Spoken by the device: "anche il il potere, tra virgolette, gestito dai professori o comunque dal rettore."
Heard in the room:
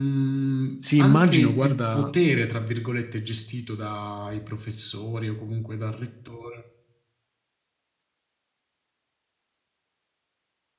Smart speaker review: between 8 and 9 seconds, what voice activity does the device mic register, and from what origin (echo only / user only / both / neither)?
neither